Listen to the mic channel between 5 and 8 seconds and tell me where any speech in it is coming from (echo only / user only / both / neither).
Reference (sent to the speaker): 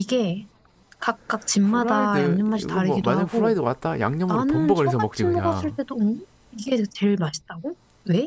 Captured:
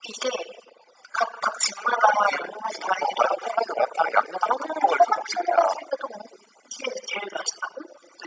echo only